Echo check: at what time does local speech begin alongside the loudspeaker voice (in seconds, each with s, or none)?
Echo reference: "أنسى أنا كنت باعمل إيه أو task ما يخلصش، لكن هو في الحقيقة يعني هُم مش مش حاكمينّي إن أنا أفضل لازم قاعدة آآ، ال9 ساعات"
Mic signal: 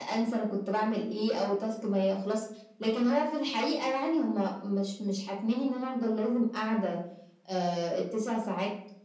none